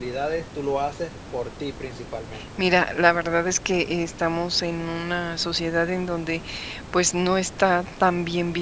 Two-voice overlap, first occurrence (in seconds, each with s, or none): none